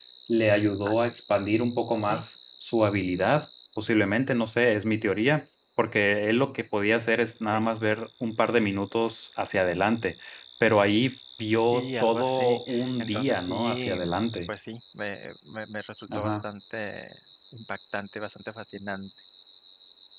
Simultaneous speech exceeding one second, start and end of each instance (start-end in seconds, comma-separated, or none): 11.7-14.0